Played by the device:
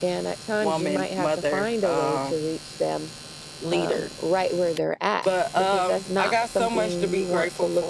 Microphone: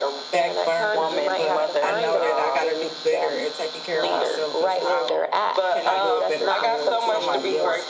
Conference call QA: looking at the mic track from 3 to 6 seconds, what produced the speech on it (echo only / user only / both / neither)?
both